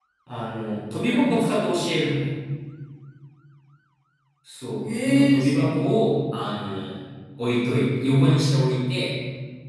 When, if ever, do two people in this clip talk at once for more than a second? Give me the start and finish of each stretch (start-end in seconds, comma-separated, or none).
4.8-6.0